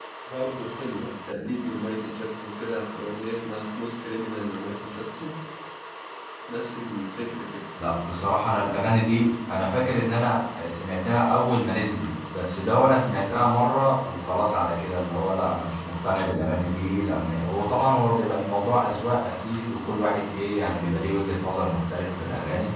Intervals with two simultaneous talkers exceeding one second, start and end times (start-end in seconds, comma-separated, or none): none